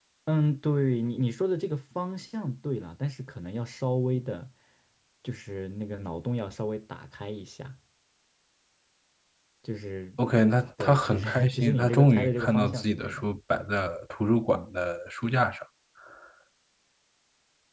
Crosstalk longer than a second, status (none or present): present